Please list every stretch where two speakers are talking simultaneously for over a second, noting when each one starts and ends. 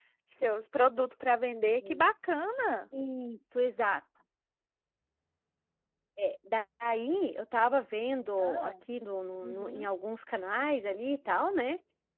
none

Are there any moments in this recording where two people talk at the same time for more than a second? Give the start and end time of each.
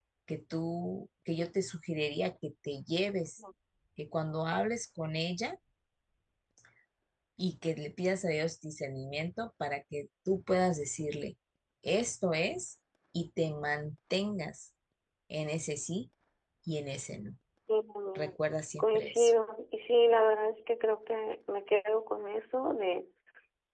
none

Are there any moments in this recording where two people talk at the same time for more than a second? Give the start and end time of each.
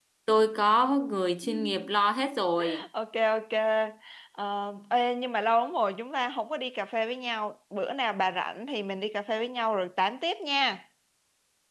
none

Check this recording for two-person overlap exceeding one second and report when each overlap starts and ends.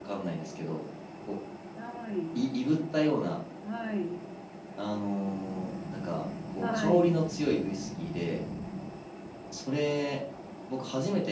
none

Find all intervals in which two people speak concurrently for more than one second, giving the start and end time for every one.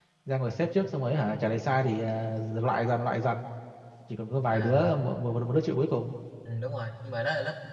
none

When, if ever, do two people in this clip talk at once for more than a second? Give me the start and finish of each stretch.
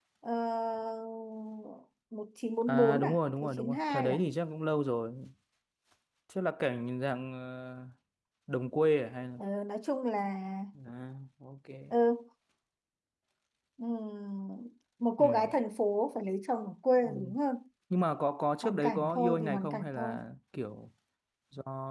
2.7-4.2, 18.6-20.2

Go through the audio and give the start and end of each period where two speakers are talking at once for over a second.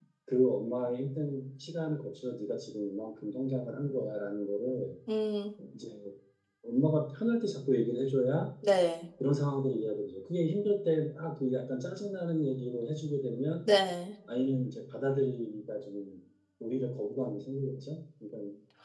none

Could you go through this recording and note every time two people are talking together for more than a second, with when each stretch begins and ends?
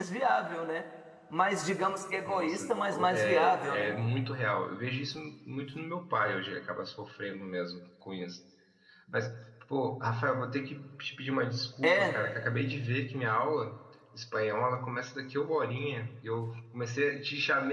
2.3-3.9

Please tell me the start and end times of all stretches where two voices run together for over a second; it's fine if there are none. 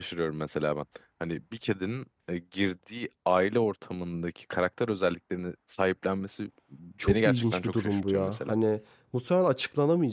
7.1-8.5

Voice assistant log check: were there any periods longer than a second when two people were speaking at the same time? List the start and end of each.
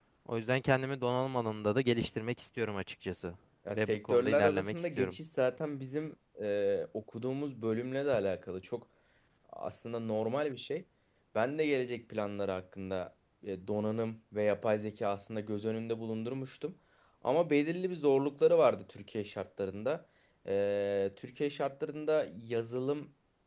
3.8-5.1

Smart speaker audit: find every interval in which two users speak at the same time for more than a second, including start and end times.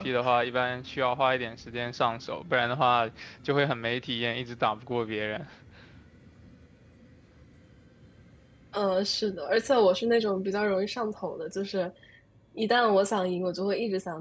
none

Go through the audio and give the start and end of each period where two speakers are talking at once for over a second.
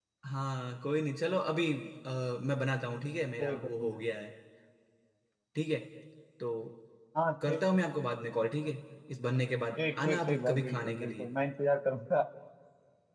9.8-11.3

